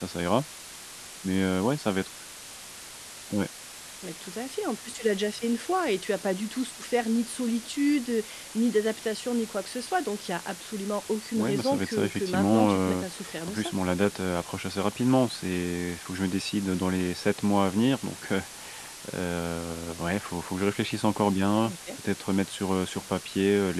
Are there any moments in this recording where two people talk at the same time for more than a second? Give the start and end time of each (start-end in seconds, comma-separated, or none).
11.4-13.0